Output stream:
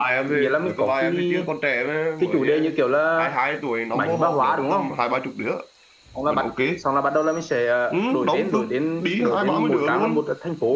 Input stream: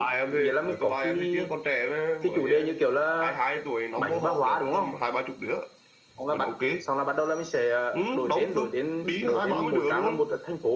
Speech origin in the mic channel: echo only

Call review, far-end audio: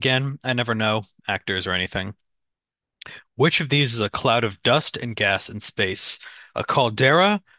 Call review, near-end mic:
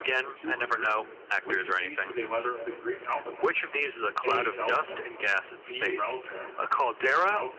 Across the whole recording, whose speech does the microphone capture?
both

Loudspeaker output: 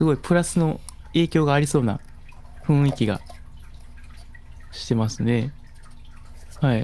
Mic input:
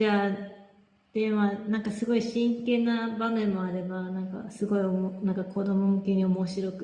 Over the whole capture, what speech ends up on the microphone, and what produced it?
user only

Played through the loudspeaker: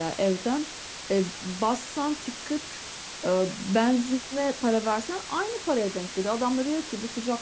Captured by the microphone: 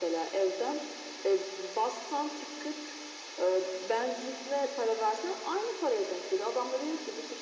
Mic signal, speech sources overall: echo only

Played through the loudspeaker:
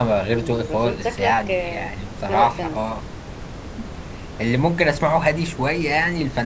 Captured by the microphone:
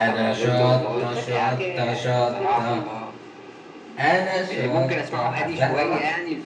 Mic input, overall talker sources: both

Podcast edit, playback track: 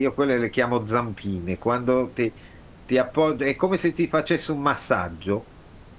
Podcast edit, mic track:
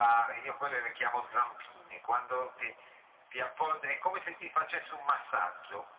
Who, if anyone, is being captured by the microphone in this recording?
echo only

